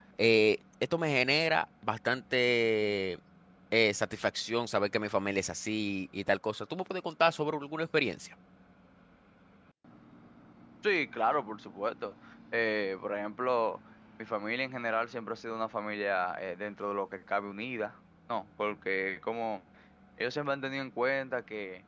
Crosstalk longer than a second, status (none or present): none